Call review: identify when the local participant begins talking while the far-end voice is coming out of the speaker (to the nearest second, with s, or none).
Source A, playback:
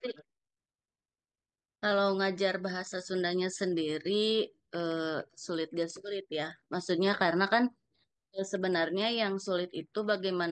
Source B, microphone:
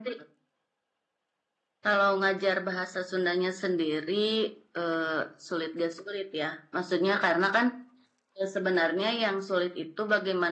none